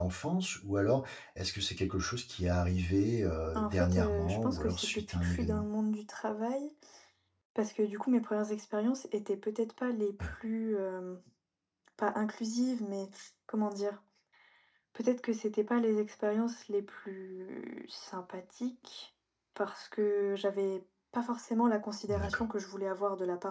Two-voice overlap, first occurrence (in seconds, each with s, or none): 3.6 s